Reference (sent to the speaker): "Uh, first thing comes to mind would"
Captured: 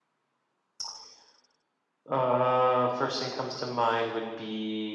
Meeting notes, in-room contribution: none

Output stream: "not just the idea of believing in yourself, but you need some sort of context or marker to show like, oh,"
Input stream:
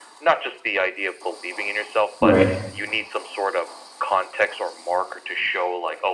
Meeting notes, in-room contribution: present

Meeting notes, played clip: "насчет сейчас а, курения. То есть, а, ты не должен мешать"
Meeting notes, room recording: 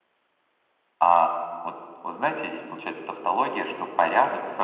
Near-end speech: present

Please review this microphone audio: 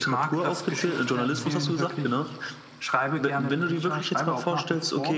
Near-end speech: present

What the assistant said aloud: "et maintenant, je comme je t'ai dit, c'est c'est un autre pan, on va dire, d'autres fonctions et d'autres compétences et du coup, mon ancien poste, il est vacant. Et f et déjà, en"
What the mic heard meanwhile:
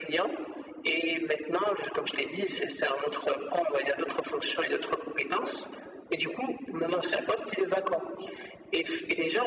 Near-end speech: none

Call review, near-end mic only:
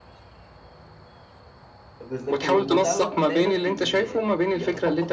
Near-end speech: present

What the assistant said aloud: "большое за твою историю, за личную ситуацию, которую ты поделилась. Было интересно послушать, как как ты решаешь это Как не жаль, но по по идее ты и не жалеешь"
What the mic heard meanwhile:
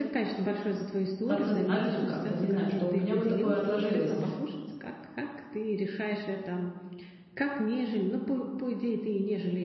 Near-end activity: present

